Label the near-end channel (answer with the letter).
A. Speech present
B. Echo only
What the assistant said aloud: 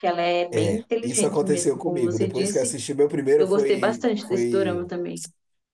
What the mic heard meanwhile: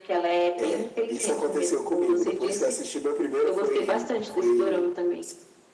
B